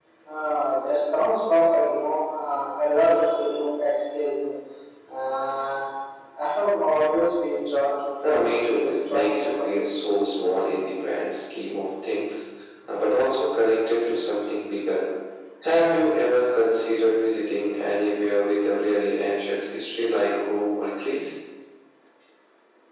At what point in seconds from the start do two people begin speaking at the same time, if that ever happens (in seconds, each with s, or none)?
8.2 s